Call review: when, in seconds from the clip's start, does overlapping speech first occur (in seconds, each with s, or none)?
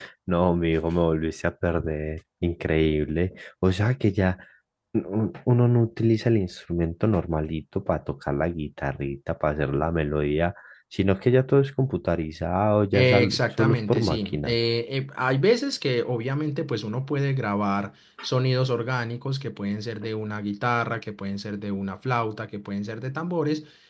12.9 s